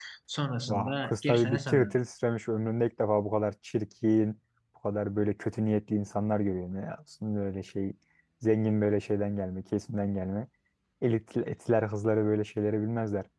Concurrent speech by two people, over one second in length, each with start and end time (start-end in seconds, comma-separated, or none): 0.7-2.0